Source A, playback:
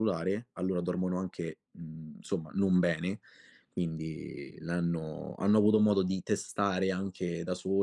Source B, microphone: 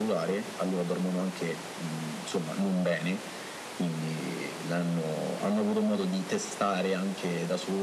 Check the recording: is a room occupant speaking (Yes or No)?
No